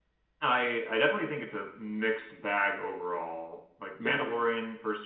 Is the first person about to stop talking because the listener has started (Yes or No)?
No